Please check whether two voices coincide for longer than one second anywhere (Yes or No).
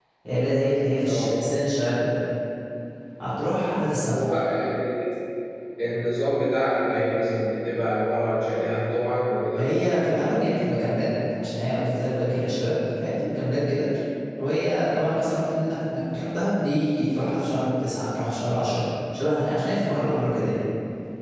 No